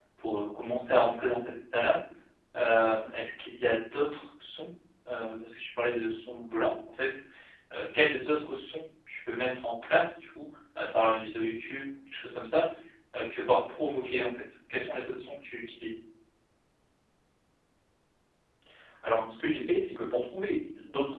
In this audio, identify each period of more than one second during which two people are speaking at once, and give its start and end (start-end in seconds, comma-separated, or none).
none